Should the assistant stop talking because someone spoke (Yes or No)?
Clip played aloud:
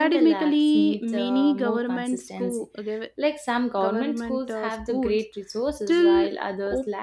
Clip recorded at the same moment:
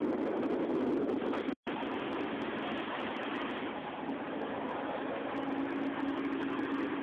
No